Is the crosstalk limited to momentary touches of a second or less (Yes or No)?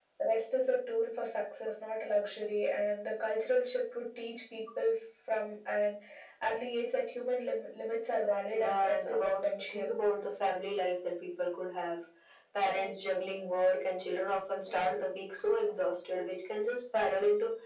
No